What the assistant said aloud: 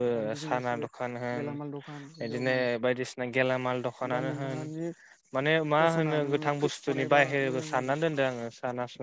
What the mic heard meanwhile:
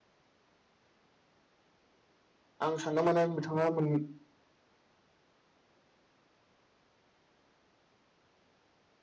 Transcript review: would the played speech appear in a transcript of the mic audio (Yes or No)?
No